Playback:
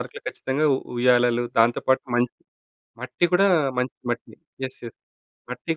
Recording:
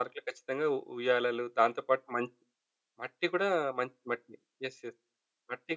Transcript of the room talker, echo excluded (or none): none